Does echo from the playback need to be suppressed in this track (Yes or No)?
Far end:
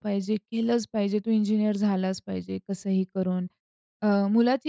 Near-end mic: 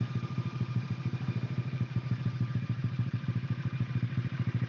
No